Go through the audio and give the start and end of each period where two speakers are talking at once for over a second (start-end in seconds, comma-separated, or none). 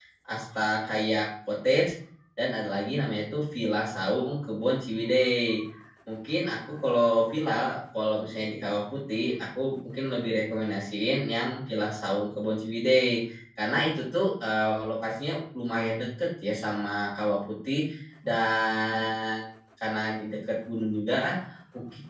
none